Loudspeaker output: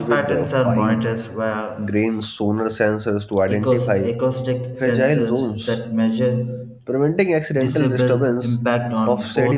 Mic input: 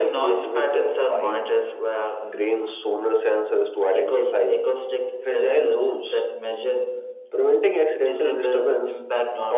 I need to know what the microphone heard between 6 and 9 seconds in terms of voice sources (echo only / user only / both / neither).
echo only